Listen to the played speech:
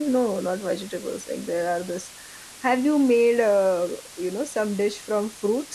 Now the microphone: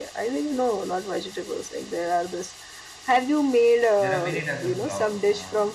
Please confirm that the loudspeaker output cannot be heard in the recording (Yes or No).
No